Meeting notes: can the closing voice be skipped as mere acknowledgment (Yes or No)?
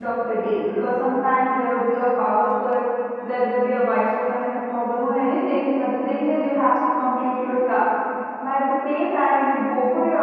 Yes